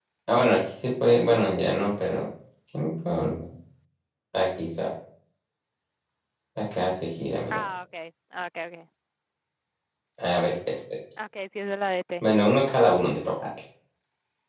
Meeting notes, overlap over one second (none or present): none